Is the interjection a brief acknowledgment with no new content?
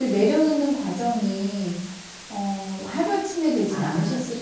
No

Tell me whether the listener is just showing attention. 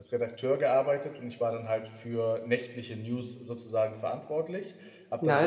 No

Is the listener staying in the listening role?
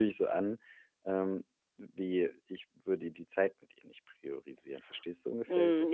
No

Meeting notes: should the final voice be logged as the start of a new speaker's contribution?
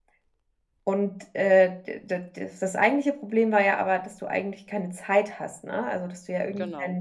No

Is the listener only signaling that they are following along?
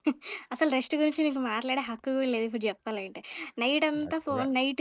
Yes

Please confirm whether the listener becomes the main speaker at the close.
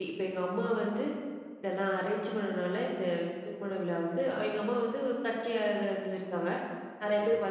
No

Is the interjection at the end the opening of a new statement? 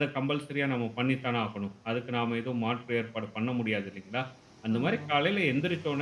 No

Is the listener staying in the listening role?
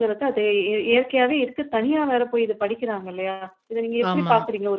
Yes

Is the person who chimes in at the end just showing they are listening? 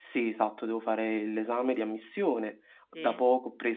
Yes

